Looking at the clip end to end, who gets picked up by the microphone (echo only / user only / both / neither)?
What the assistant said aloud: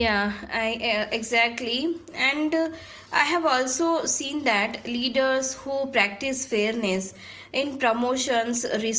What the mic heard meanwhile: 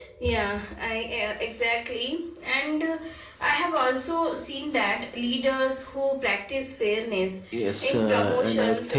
both